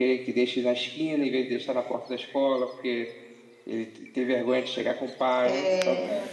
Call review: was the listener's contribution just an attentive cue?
Yes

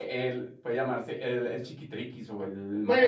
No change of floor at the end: No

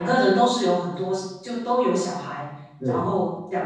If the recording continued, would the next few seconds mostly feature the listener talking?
No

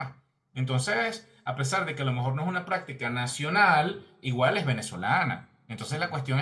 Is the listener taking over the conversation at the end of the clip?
No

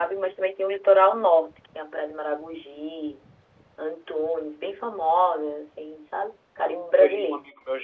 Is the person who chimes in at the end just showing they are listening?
No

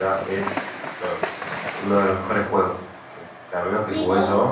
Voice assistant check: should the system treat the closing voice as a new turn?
Yes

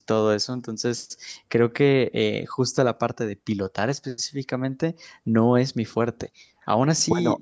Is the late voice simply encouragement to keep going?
Yes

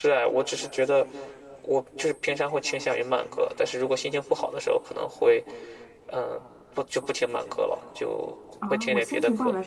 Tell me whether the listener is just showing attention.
No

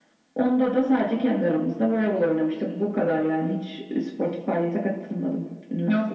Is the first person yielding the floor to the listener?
Yes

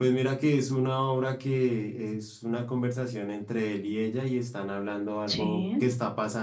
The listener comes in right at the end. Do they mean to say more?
No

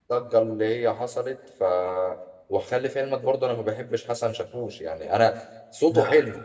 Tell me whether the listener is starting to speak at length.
No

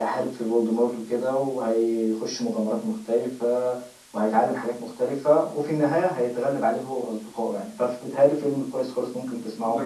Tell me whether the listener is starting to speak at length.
Yes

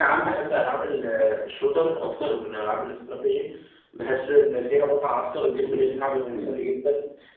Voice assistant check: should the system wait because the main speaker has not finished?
Yes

